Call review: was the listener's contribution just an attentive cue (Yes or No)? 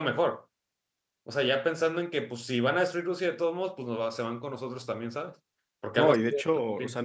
No